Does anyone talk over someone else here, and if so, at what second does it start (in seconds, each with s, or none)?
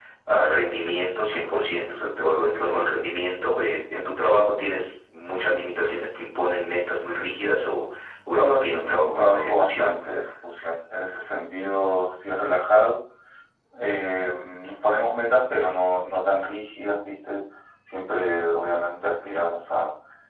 8.3 s